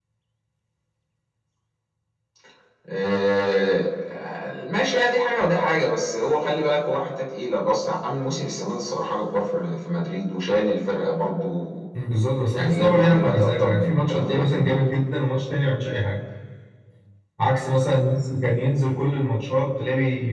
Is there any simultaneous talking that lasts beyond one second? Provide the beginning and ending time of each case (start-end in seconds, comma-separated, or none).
12.5-14.8